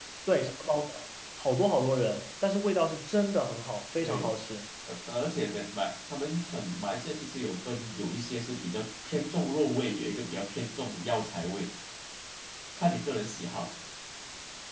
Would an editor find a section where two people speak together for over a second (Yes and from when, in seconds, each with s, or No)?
No